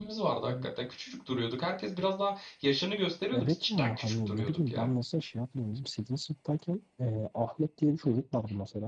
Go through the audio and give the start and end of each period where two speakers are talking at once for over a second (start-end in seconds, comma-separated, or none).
3.3-4.9